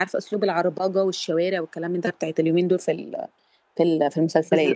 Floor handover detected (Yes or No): Yes